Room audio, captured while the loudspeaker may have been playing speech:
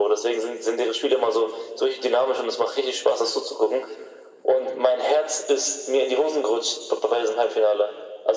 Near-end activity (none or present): none